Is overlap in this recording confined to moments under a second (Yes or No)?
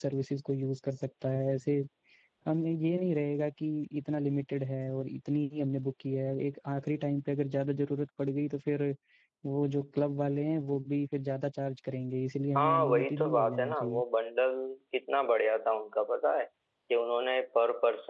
No